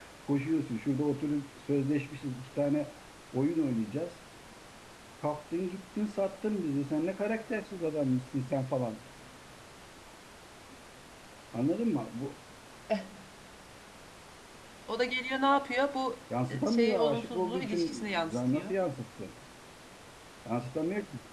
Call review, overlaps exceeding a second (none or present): present